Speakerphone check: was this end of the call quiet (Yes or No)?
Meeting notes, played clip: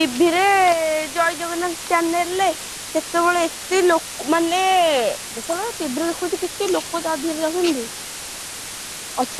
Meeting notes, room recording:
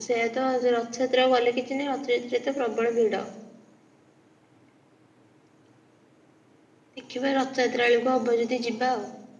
No